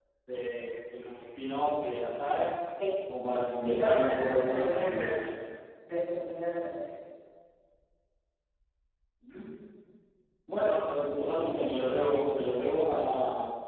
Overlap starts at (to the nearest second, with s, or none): 4 s